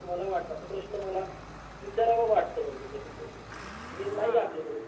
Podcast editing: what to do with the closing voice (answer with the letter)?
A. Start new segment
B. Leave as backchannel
B